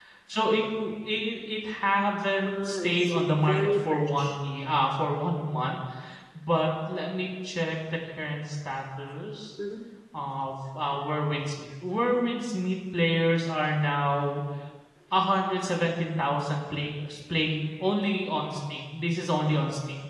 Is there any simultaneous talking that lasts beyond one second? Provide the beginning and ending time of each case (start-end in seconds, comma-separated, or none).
2.4-4.4